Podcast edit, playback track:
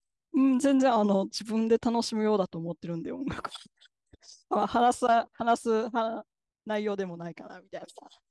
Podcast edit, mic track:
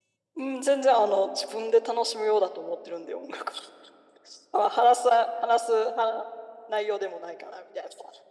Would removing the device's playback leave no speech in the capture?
Yes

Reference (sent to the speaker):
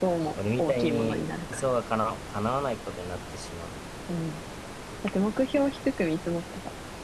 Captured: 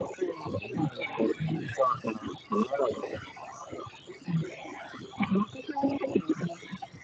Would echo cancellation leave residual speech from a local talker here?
No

